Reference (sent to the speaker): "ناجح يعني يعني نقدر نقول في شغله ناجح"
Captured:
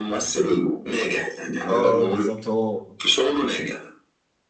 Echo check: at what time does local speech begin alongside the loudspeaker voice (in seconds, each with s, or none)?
1.7 s